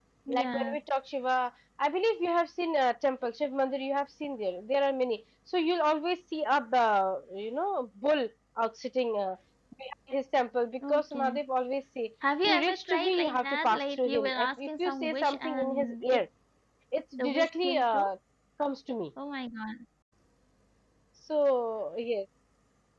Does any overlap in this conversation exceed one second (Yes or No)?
Yes